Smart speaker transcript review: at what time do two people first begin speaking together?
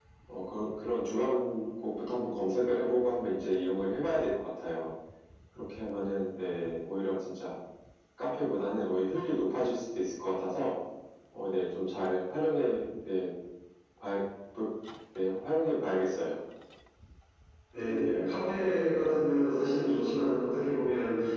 none

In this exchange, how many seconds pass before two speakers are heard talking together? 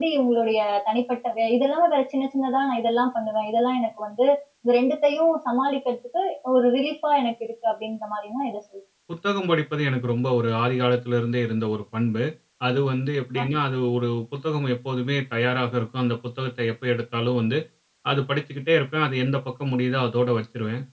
none

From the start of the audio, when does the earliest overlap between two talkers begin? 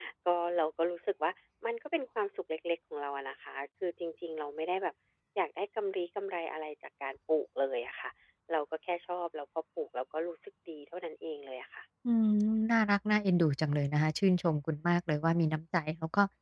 none

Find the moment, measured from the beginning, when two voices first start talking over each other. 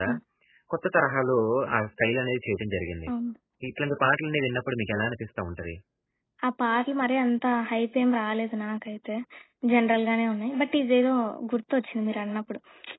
none

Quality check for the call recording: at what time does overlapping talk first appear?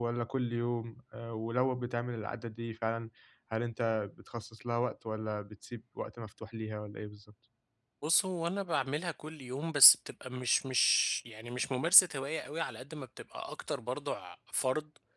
none

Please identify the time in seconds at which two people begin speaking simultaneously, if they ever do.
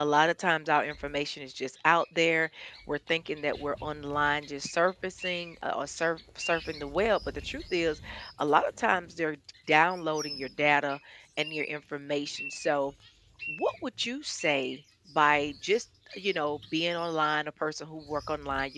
none

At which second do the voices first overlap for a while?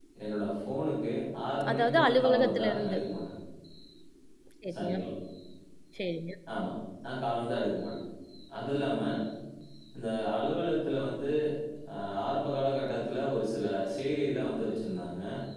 2 s

